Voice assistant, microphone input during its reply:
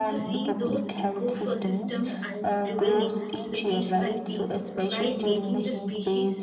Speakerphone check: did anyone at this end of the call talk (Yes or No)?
Yes